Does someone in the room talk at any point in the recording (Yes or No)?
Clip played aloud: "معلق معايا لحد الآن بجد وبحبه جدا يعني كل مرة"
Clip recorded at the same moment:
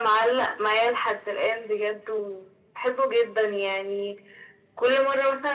No